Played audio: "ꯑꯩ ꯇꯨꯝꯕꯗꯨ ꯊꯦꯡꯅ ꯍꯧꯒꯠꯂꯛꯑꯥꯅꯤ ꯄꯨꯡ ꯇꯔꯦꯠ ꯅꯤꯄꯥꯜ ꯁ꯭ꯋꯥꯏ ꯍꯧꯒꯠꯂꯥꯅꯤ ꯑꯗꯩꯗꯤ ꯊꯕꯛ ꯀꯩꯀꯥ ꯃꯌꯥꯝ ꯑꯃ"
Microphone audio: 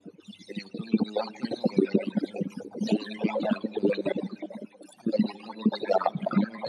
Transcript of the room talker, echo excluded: none

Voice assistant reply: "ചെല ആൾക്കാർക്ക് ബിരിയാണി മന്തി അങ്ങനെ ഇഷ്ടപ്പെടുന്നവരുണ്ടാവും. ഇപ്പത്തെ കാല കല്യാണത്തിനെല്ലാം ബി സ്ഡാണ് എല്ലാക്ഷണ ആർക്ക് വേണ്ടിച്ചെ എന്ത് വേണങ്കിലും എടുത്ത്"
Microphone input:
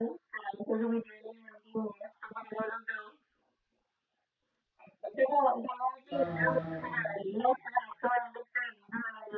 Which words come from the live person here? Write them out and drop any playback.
ആഹ്

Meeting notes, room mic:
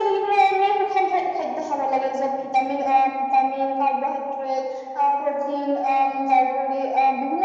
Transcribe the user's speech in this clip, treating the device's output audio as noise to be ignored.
none

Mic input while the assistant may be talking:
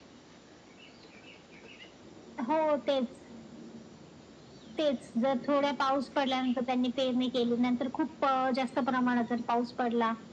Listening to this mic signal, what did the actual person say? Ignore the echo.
none

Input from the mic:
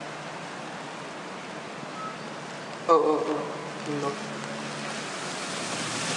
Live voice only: औ औ औ नंगौ।

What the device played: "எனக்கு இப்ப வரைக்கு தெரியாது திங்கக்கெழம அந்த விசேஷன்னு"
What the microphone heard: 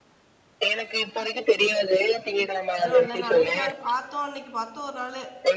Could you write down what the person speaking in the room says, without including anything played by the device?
எதோ நல்ல நாள்னு சொன்னாங்க பாத்தோ அன்னைக்கு பாத்தோ ஒரு நாளு

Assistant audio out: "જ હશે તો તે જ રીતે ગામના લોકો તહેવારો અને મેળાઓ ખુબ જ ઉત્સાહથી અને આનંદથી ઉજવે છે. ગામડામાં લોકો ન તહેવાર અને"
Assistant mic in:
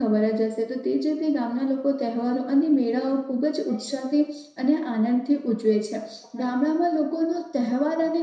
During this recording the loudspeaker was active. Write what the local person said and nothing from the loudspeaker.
none

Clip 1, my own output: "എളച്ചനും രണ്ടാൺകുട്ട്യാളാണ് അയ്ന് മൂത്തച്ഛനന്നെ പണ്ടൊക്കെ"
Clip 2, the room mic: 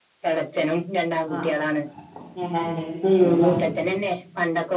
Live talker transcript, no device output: ആഹ് അങ്ങനെയാണ് അല്ലെങ്കി ചെയ്യൂല

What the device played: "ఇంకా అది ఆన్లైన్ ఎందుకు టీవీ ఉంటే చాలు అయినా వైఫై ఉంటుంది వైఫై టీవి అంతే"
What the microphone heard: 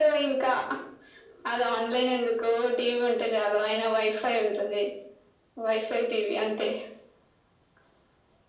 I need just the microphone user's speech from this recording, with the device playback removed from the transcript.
none

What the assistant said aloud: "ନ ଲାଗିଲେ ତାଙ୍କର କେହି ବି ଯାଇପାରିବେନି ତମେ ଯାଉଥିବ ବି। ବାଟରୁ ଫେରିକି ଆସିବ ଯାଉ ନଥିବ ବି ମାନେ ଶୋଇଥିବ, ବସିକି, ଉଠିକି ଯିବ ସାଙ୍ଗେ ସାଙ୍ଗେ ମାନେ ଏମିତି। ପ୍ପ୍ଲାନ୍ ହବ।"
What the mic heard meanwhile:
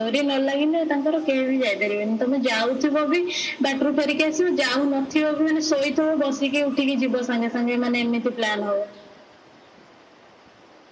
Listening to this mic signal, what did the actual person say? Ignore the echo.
none

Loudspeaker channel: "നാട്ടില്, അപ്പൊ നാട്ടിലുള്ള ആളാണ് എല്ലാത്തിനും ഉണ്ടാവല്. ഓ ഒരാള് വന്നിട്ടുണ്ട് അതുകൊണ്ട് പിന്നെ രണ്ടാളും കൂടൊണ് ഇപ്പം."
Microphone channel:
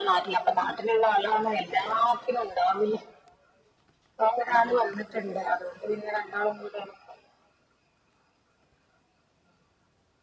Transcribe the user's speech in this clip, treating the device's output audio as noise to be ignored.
none

